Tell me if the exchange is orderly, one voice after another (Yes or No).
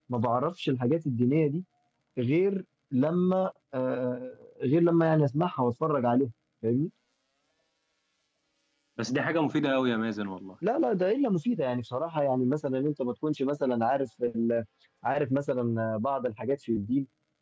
Yes